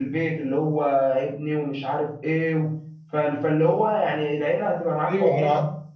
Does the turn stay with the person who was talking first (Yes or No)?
No